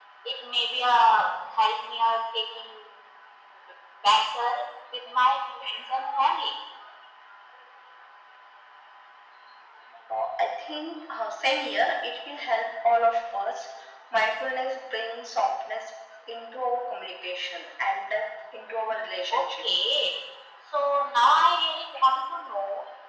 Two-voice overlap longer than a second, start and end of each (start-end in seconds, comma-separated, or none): none